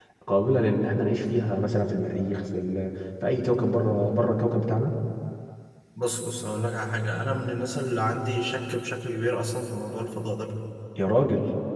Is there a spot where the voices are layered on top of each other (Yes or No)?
No